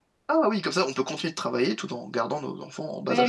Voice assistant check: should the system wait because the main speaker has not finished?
No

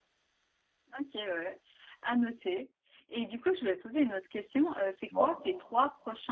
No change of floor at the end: Yes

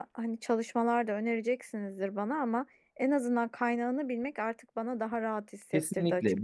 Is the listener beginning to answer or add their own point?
Yes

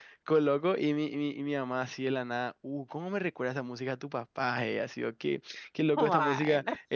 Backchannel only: Yes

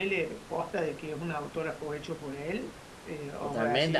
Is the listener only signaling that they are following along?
No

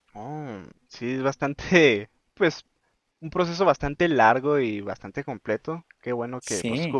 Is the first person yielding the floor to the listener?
No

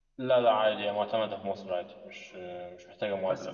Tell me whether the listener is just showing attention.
No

